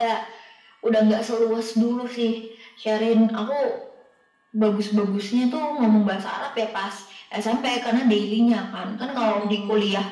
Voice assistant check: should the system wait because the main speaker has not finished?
Yes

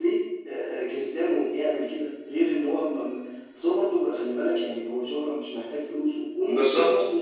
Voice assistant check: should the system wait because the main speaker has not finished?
Yes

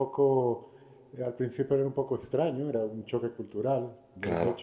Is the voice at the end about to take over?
No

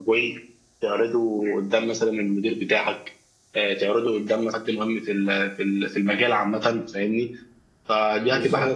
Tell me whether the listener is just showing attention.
Yes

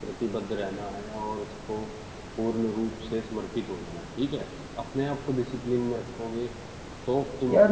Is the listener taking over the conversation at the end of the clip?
Yes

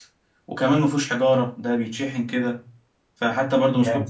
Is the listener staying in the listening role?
Yes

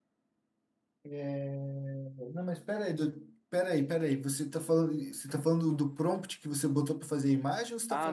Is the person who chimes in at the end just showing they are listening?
No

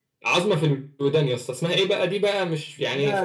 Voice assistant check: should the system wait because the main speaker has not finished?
No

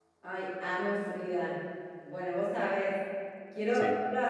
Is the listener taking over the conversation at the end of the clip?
No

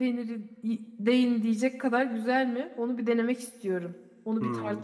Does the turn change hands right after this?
Yes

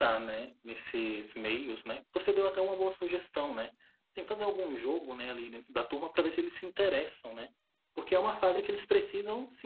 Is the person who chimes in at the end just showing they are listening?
Yes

